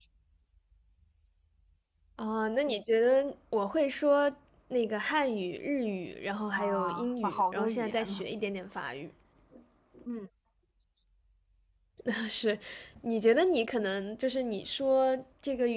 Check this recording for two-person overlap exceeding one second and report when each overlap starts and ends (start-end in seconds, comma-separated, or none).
6.5-8.2